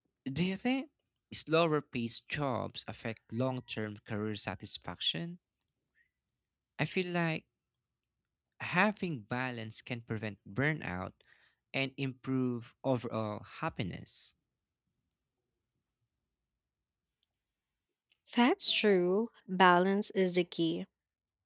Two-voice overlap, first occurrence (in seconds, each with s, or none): none